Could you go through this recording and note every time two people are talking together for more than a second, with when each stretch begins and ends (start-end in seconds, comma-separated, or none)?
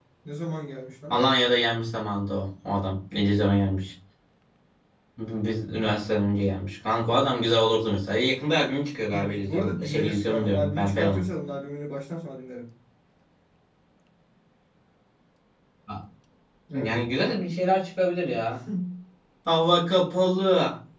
9.1-11.3